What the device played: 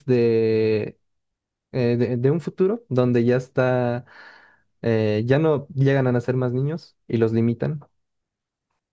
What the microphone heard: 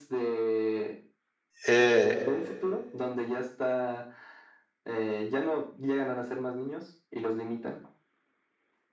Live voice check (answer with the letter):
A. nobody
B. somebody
B